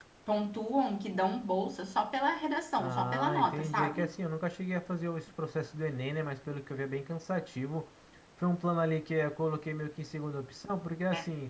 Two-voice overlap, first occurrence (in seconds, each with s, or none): 2.8 s